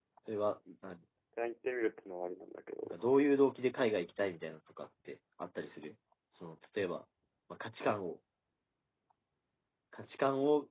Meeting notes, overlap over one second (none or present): none